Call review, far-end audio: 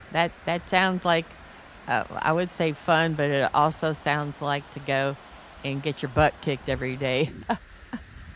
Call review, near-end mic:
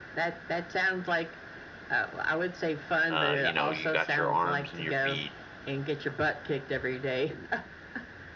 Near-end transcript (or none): uh, you know, you got your arms and your feet,